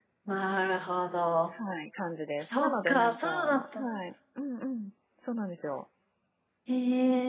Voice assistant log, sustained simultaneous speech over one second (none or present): present